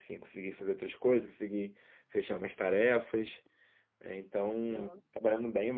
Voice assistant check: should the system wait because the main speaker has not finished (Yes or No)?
Yes